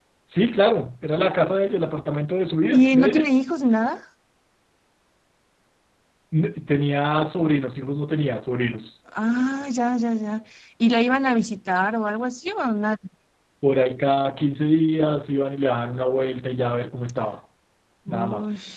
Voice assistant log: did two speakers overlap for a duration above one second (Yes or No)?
No